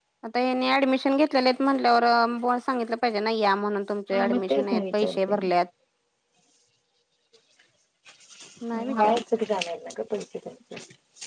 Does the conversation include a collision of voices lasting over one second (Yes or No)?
Yes